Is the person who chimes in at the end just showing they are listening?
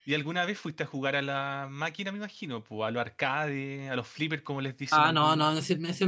No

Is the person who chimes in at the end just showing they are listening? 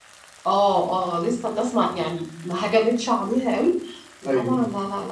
Yes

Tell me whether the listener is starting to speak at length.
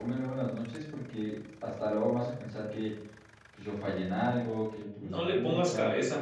Yes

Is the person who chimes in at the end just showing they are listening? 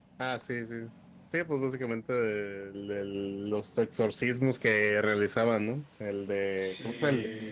Yes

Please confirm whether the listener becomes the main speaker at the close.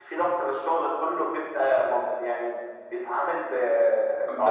Yes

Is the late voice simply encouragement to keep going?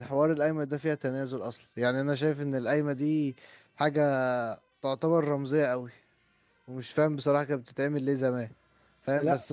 Yes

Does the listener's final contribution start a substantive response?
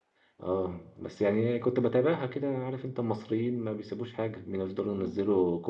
No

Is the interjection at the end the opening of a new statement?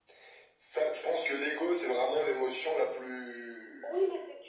Yes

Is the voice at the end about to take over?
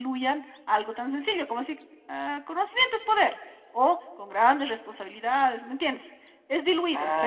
No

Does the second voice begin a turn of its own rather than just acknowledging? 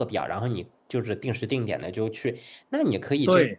No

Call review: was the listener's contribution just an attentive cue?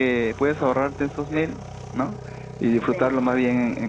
Yes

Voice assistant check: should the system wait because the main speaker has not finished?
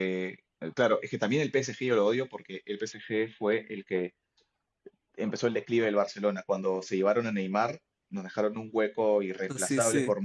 Yes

